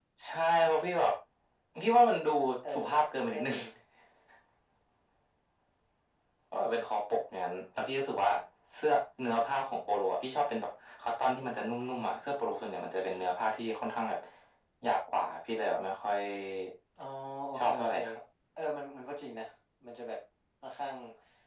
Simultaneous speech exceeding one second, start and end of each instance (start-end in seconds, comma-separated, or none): none